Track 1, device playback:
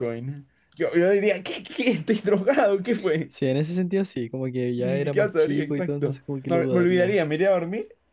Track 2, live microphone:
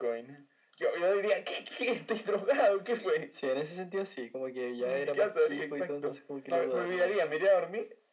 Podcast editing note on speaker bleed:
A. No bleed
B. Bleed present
B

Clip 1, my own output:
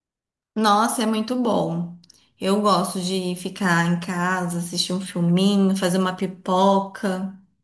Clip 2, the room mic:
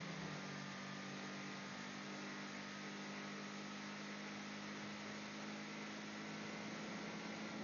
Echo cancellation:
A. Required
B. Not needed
B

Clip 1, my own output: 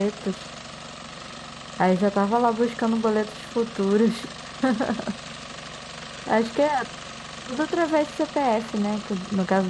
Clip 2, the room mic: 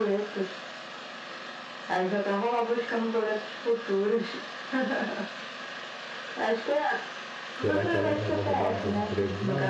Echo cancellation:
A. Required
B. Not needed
A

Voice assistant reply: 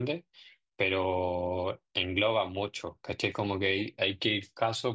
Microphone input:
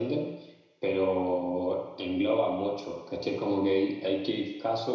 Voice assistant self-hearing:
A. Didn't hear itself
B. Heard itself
B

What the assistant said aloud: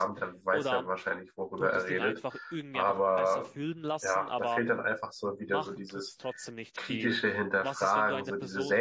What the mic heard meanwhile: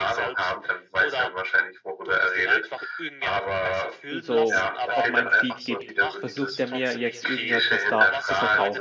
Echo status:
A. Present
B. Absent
A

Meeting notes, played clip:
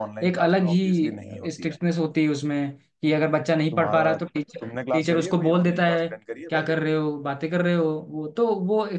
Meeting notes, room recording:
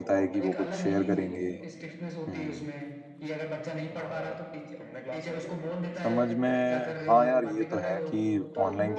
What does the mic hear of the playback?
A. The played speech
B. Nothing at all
A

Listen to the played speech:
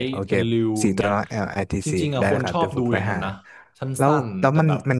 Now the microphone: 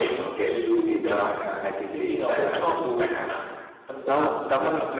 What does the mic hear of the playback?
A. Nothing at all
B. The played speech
B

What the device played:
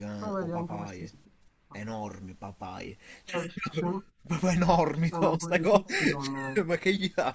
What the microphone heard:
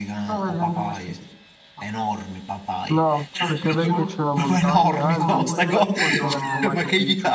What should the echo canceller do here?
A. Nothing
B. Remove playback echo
B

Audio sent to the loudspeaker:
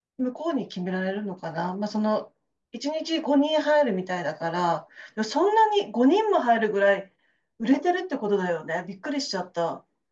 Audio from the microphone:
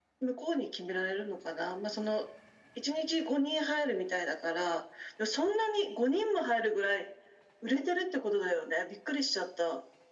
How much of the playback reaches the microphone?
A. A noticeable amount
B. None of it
A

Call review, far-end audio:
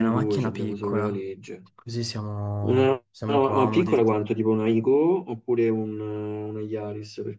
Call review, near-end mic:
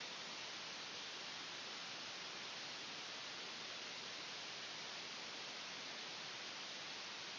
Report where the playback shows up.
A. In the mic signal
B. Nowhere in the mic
B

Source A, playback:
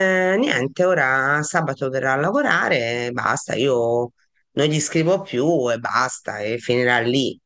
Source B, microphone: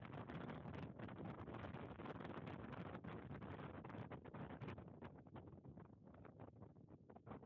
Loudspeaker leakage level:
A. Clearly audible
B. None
B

